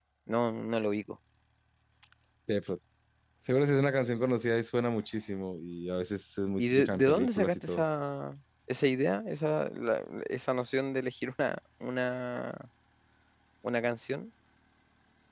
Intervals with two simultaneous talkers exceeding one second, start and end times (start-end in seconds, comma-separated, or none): 6.6-7.8